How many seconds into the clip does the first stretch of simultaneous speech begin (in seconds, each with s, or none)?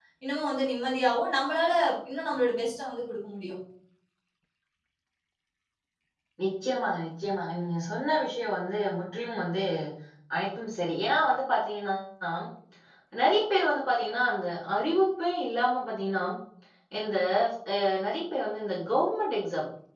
none